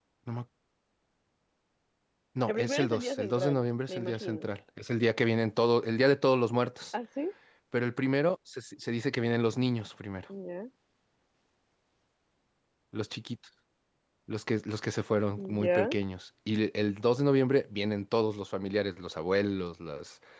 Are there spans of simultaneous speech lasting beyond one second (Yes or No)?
Yes